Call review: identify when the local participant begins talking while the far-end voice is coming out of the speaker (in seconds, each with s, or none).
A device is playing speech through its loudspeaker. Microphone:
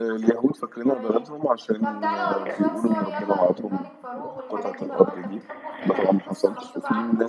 0.8 s